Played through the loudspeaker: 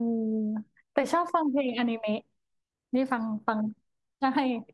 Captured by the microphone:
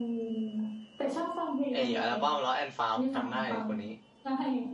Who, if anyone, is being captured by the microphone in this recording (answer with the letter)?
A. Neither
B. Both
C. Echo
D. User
B